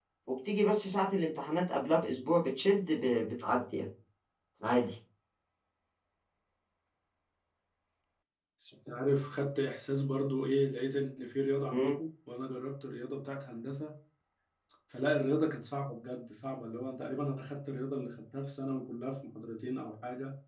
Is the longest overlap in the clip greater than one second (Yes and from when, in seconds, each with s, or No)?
No